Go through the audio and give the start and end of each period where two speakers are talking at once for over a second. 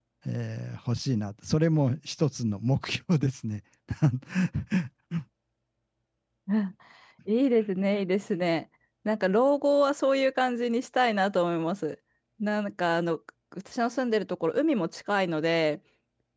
none

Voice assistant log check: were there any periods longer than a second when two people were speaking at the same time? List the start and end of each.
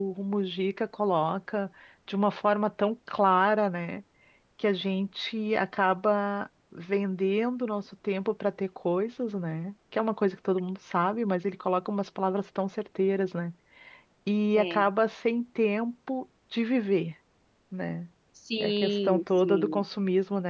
18.6-19.9

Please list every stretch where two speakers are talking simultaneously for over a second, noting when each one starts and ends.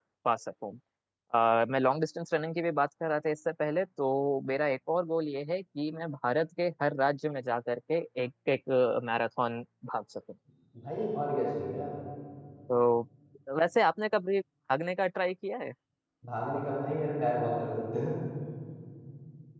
none

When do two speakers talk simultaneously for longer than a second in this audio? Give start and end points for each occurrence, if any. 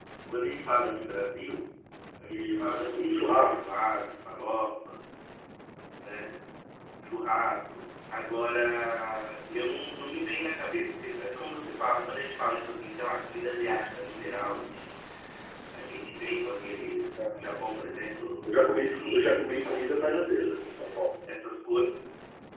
2.3-3.5, 18.5-20.6

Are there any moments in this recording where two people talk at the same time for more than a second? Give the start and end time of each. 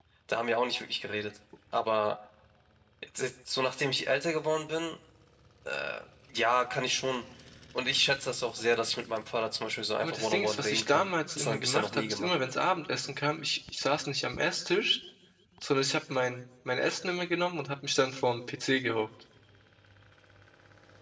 10.0-12.3

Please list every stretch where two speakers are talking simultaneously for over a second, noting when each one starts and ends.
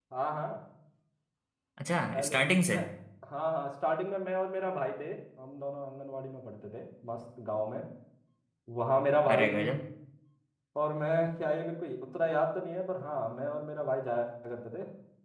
none

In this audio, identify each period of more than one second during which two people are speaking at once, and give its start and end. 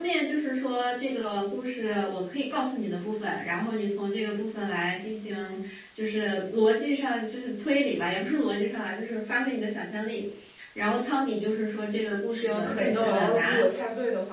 12.3-13.6

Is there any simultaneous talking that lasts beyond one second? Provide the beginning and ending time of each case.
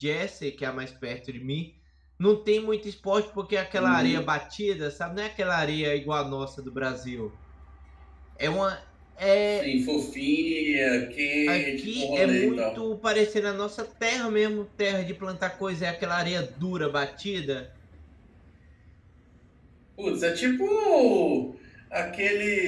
11.5-12.8

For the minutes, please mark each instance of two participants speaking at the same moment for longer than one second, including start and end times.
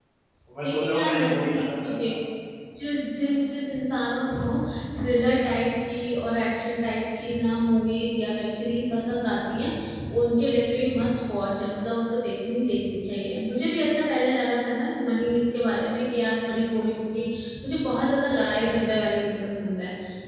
0.6-1.9

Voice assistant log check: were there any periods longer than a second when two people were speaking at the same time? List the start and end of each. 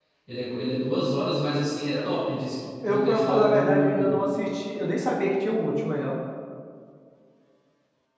2.8-4.1

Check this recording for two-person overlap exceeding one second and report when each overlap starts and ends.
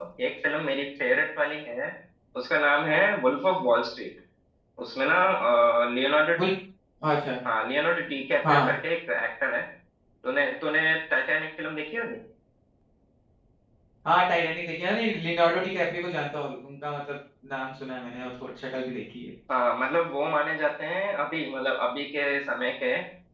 none

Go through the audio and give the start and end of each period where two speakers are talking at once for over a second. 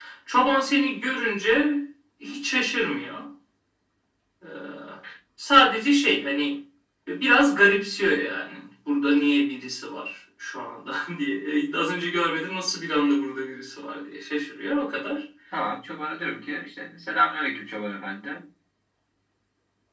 none

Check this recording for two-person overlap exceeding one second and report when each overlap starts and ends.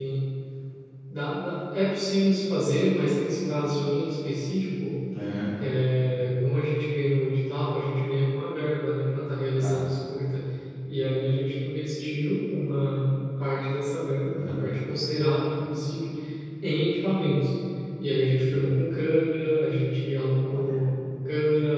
none

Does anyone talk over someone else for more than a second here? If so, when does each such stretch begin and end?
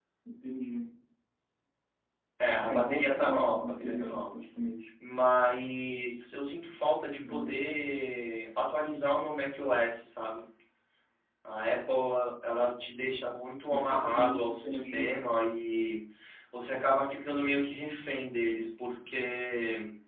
2.6-4.2, 13.6-15.2

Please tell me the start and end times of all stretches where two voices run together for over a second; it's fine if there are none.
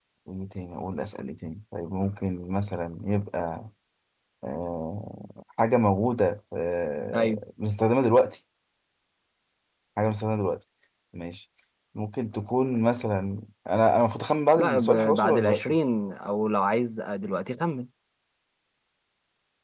14.6-15.8

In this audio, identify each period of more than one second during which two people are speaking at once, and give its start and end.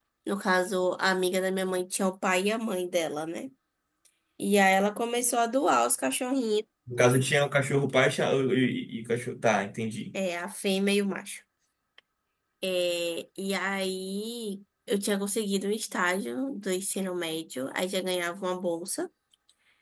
none

